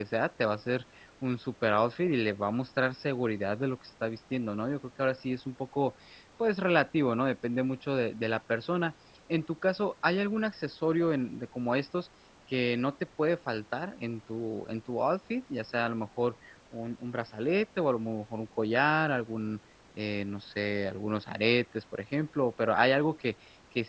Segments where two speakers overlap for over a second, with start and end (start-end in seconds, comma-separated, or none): none